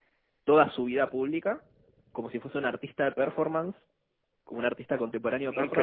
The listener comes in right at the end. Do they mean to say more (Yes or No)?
Yes